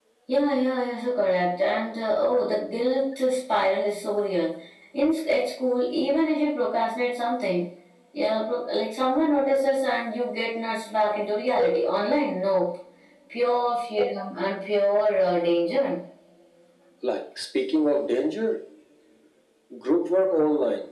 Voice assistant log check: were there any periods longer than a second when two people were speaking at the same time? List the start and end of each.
none

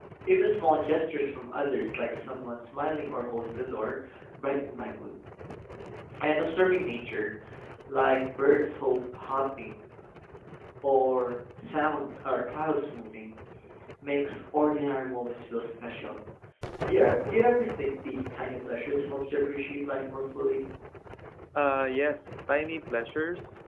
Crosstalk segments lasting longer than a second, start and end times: none

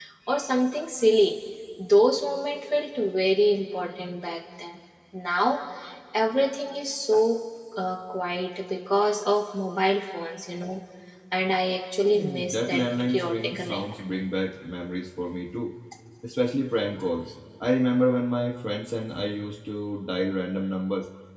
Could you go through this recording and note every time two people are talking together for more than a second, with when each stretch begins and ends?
12.1-13.9

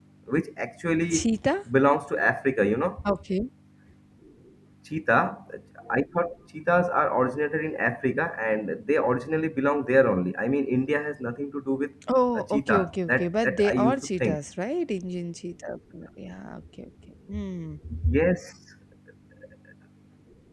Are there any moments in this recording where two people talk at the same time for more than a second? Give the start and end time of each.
12.3-14.4

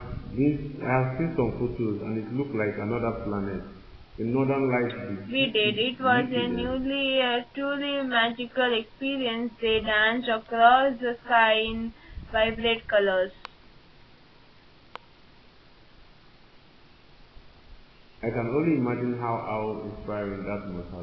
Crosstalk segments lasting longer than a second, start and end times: 5.3-6.8

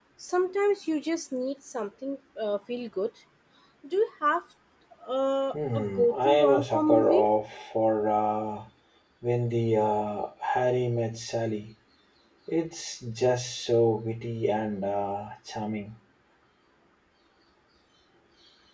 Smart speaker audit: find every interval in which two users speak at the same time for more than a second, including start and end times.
5.5-7.3

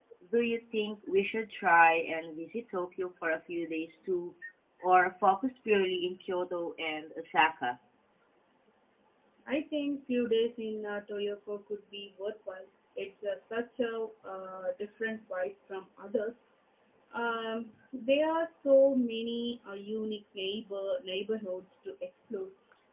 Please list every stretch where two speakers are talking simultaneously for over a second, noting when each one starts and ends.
none

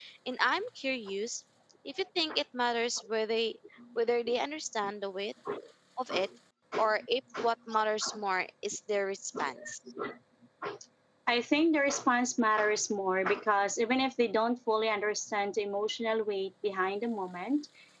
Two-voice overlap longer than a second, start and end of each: none

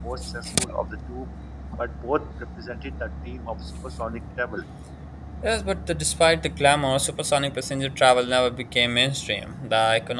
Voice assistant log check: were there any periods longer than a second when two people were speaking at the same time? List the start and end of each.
none

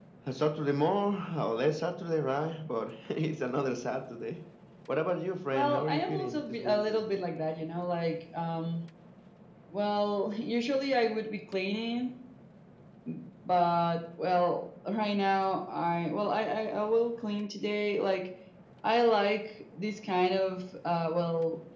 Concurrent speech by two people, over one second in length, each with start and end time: 5.5-7.1

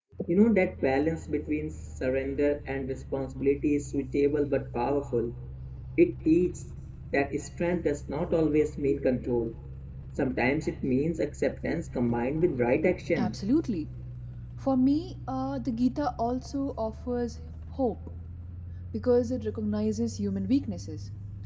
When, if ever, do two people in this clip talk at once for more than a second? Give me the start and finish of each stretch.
none

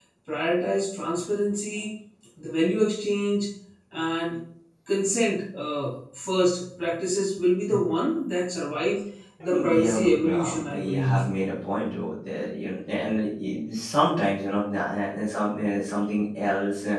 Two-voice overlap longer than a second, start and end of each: 9.4-11.2

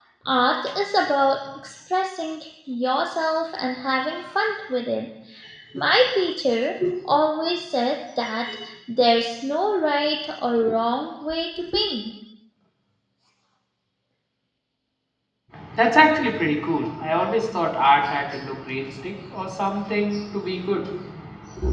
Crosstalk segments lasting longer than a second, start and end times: none

